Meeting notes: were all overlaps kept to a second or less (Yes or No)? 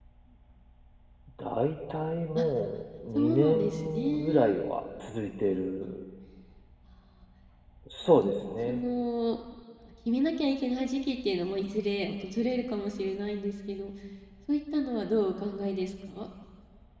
No